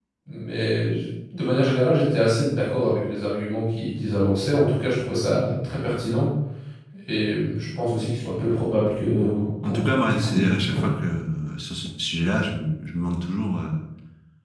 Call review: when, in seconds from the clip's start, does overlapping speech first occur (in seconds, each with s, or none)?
9.6 s